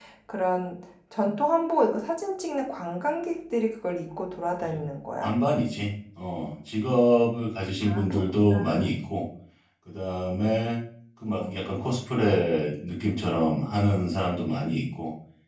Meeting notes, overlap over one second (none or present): none